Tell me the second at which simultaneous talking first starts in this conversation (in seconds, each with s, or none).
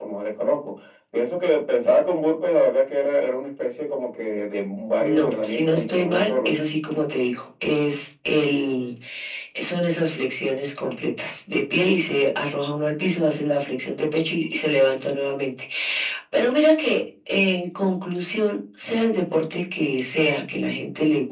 5.0 s